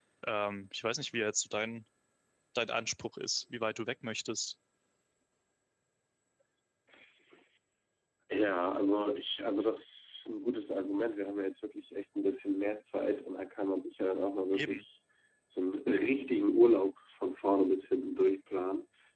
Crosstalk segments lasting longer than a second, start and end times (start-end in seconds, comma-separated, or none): none